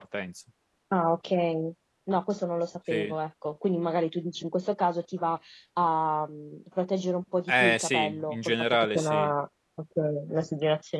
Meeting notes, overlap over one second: present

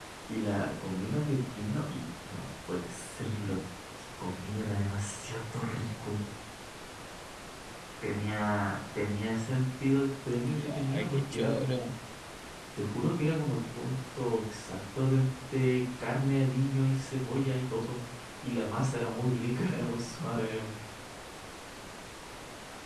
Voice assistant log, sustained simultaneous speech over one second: present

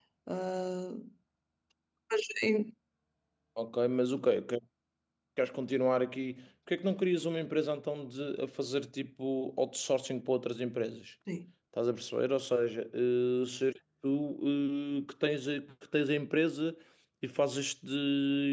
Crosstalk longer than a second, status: none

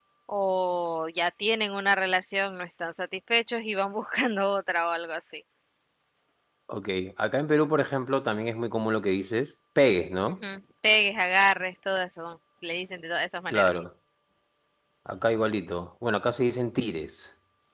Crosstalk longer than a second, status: none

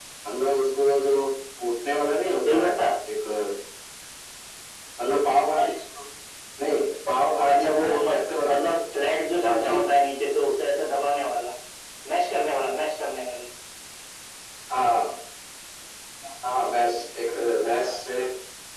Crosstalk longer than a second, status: present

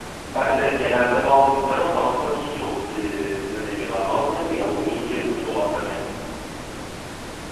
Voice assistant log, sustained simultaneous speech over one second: present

